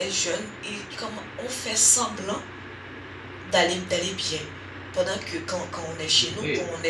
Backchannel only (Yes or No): Yes